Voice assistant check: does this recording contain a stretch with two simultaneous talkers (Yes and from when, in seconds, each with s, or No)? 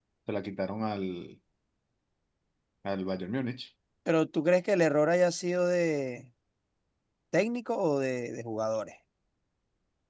No